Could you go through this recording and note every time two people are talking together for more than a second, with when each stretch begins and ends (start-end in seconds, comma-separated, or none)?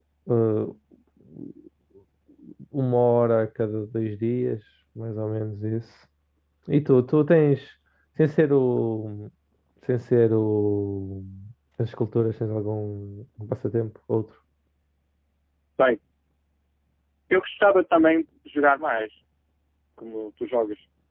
none